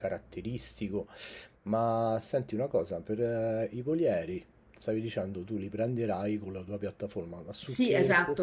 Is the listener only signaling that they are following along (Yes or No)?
No